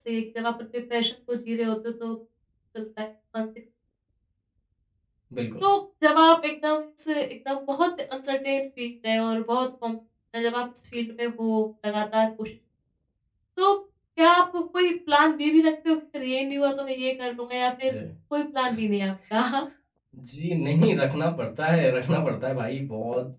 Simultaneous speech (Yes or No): No